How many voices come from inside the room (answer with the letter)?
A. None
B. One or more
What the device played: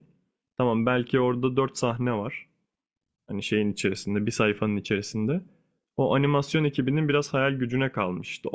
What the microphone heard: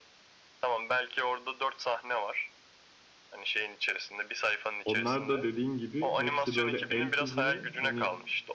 B